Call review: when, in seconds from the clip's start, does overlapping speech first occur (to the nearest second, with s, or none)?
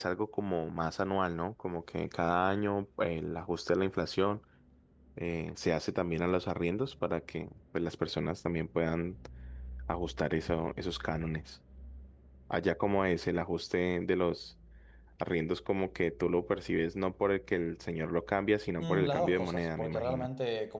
19 s